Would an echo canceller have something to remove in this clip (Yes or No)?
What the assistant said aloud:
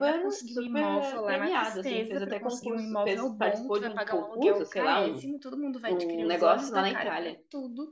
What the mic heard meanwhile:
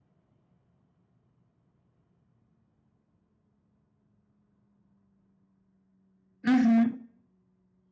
No